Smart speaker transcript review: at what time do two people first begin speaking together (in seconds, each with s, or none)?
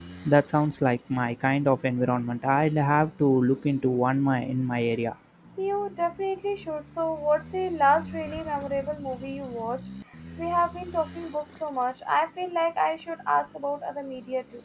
none